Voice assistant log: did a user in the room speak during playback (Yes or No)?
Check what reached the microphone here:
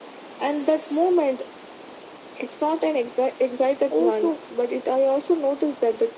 Yes